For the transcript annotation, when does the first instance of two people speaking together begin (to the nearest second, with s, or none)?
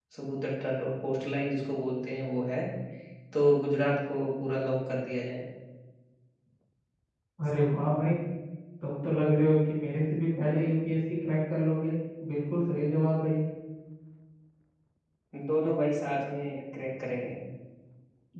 none